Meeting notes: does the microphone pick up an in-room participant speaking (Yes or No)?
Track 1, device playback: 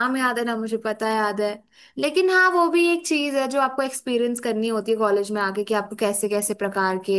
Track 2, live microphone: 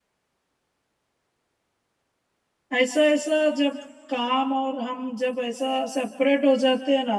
Yes